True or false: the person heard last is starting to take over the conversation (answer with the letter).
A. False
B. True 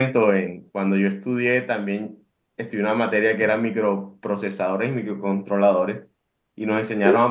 A